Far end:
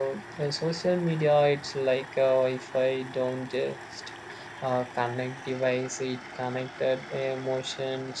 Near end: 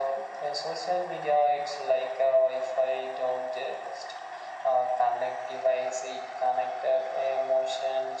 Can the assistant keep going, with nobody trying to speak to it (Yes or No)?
Yes